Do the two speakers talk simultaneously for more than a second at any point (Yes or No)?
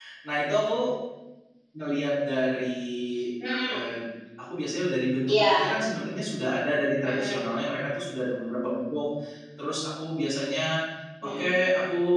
No